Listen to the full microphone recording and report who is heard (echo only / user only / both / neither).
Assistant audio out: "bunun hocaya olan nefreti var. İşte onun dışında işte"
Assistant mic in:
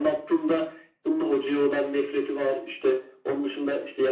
echo only